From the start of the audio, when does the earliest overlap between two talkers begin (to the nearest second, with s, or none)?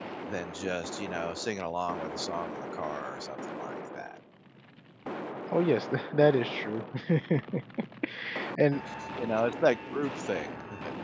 none